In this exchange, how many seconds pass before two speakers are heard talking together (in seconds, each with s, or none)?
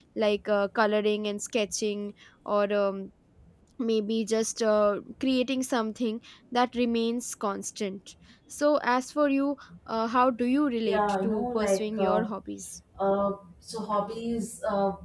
10.8 s